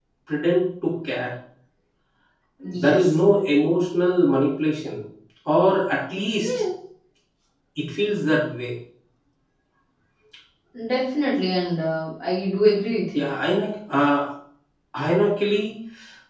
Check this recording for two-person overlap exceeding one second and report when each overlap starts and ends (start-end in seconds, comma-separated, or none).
none